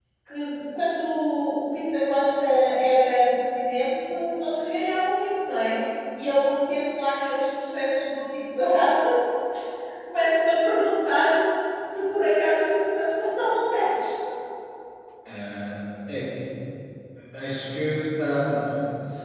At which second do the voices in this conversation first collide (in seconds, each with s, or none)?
none